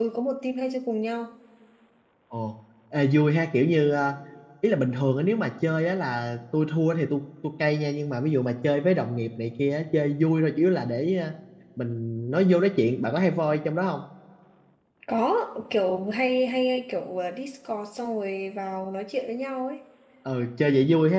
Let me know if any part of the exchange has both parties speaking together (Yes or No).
No